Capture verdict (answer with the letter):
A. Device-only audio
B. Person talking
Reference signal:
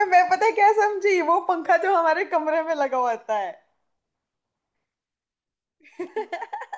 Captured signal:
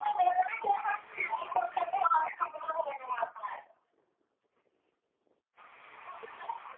A